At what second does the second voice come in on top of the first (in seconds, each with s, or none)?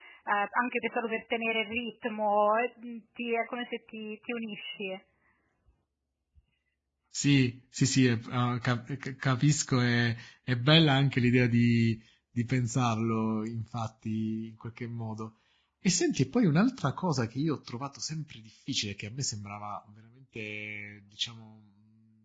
none